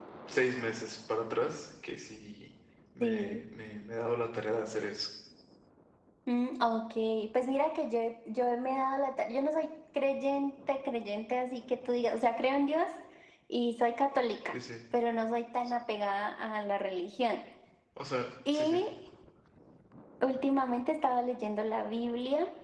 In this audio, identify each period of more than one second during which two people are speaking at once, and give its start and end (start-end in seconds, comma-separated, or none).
none